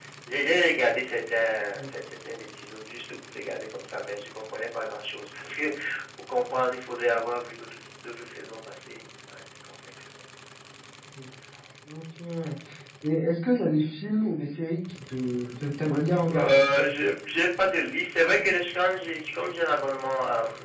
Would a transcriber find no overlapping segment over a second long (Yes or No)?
Yes